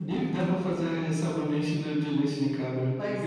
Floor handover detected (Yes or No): Yes